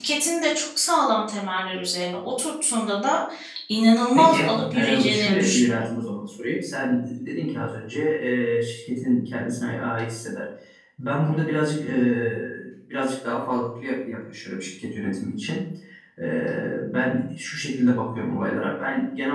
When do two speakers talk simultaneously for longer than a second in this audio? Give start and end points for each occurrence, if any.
4.2-5.9

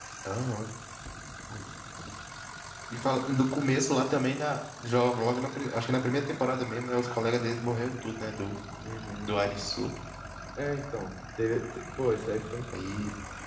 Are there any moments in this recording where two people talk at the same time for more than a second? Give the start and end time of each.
none

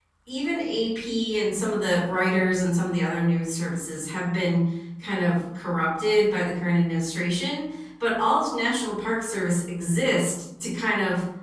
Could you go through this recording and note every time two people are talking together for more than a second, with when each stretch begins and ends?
none

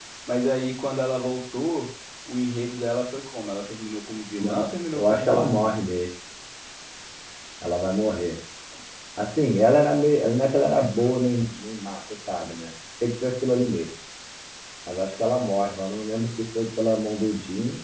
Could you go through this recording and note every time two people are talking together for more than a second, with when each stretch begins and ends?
4.4-5.8

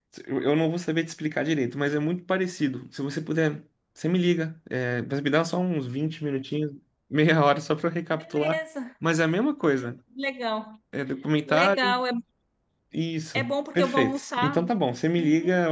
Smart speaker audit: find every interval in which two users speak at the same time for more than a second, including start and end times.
13.3-14.6

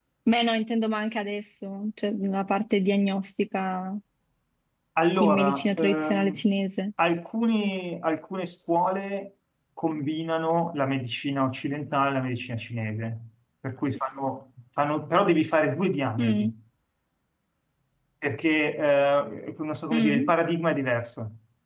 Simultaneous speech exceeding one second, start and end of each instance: 5.2-6.4

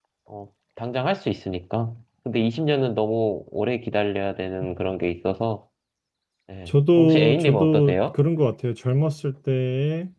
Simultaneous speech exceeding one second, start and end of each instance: 6.7-8.0

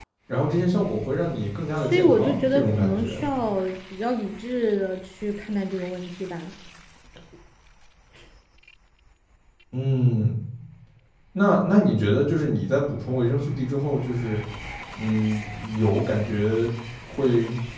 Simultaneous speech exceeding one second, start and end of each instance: 1.9-3.1

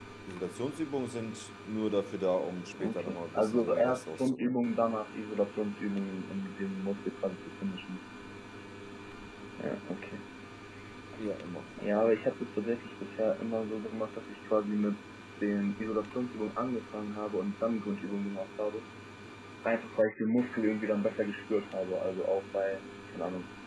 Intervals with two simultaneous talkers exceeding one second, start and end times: 2.8-4.5

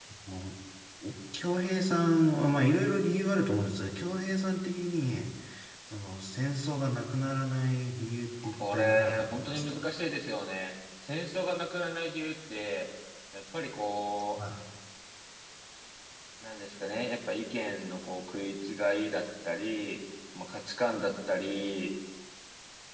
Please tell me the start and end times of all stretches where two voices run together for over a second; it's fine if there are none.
8.4-9.9

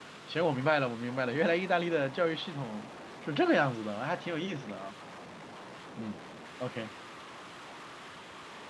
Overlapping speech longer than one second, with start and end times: none

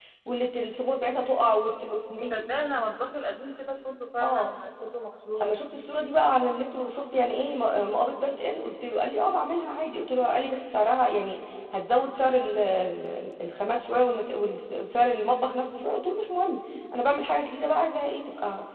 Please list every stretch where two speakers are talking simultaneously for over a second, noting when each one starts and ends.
none

